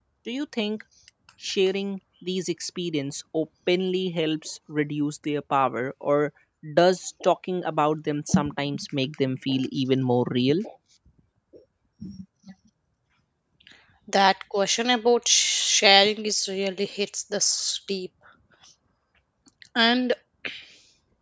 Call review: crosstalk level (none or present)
none